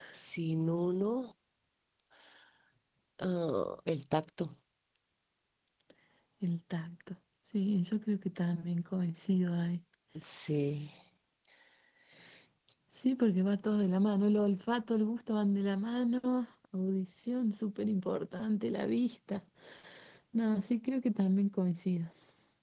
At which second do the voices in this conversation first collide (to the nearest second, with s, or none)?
none